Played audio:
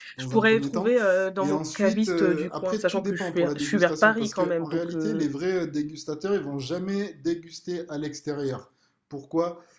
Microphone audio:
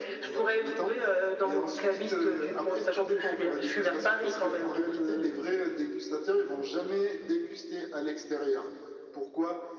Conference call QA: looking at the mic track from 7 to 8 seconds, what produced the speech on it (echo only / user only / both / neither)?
echo only